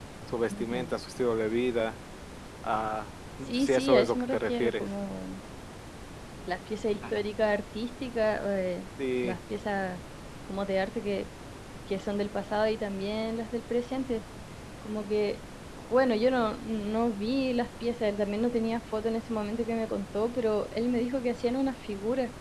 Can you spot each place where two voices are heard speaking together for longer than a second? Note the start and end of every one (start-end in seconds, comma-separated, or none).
3.5-4.9